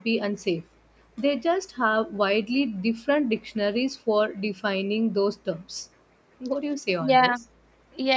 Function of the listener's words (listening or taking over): taking over